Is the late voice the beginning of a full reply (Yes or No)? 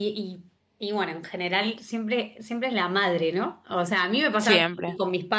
No